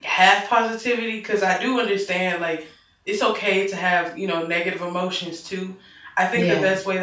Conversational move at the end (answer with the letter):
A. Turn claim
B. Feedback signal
B